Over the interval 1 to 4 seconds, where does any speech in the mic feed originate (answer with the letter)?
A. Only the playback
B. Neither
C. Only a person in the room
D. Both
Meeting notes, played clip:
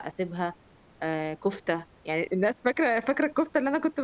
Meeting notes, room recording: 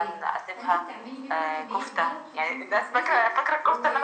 D